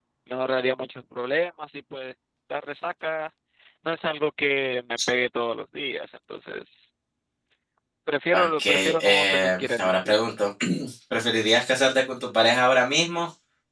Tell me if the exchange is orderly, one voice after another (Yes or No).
No